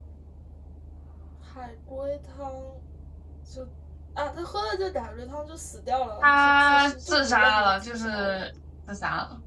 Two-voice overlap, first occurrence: 6.2 s

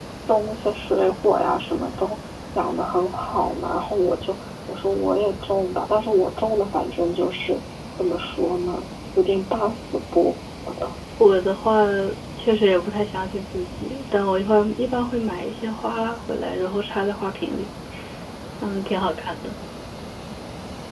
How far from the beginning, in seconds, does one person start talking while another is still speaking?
none

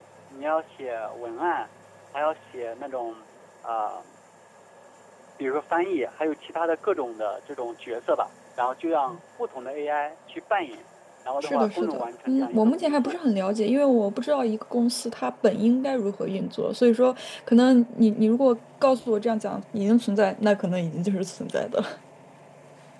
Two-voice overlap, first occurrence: 11.4 s

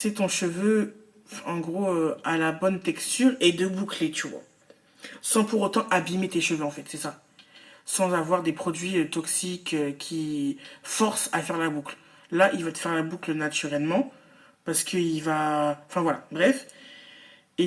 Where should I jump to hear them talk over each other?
none

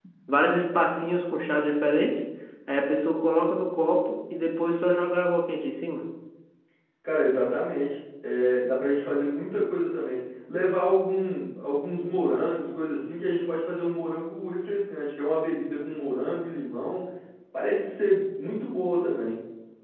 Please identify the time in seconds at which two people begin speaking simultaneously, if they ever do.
none

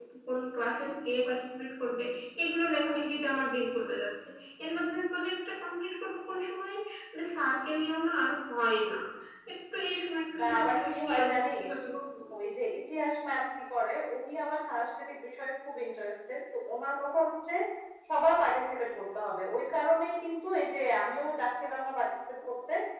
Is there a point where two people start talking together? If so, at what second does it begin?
10.4 s

